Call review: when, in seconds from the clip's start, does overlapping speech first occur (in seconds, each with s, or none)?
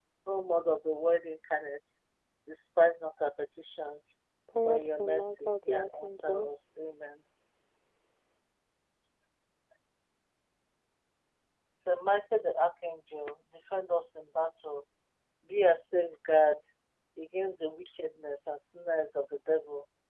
4.6 s